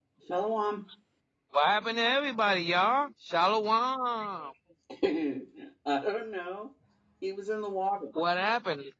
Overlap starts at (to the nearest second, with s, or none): none